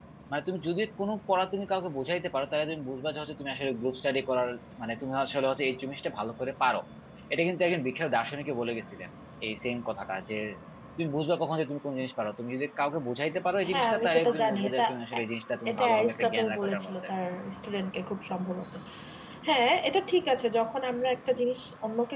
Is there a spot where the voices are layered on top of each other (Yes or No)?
Yes